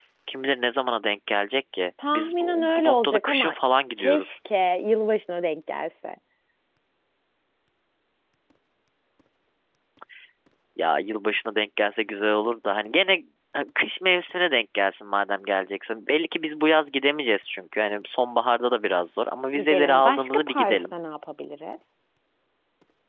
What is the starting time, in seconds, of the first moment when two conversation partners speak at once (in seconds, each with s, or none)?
2.1 s